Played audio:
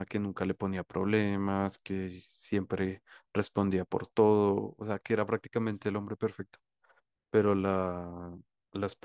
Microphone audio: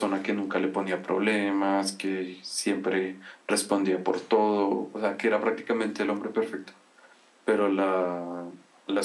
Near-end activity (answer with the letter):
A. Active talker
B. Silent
B